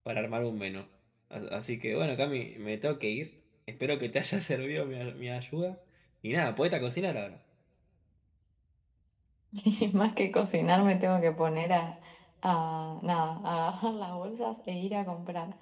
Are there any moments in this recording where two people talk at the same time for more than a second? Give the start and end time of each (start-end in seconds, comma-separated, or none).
none